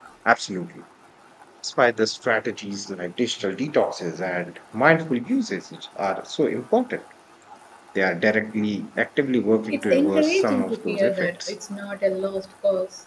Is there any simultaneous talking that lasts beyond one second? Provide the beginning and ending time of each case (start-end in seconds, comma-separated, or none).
9.7-11.5